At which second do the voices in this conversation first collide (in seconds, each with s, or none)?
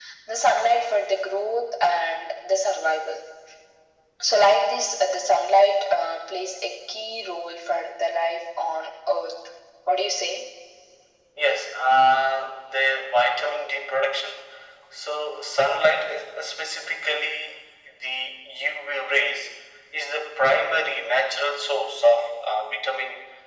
none